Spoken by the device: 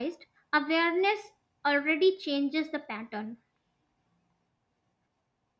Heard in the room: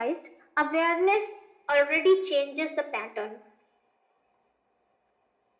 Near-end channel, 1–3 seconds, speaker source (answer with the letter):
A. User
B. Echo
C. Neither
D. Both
B